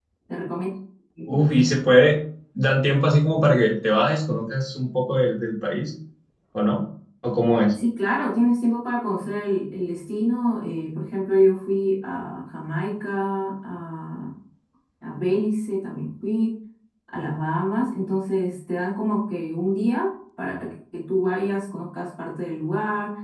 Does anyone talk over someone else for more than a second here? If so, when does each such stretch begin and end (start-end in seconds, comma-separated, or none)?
none